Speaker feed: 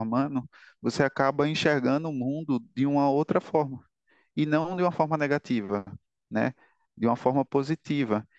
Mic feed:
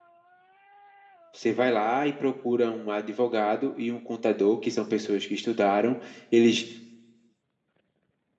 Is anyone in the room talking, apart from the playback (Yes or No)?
Yes